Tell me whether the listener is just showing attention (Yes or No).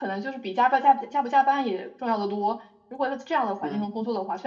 Yes